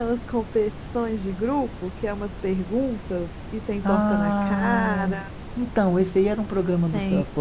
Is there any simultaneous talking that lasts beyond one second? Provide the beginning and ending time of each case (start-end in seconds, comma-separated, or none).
3.8-5.2